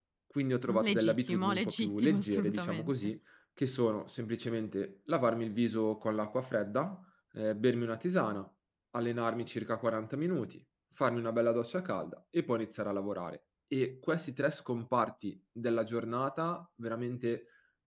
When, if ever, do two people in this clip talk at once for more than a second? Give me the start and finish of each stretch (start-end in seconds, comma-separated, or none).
0.7-3.1